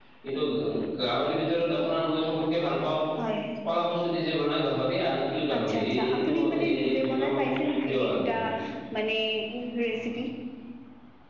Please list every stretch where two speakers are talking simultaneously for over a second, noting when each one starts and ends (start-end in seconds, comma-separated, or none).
5.5-7.4